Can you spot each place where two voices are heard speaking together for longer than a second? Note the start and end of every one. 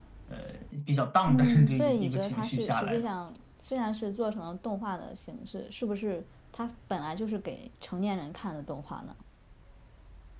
1.3-3.0

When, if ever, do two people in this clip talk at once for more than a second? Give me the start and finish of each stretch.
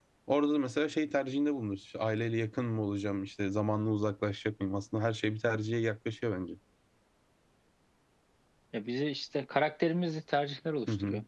none

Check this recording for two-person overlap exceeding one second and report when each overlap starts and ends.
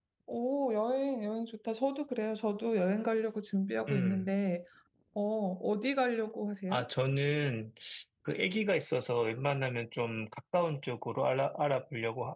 none

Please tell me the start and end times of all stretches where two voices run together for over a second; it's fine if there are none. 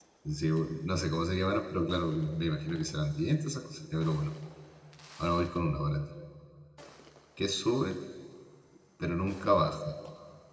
none

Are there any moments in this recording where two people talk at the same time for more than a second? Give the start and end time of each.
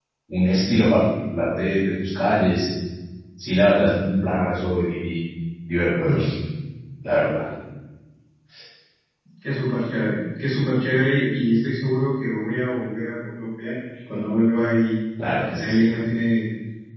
none

